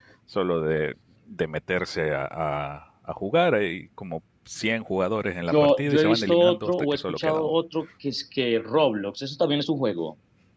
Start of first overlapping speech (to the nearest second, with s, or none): 5 s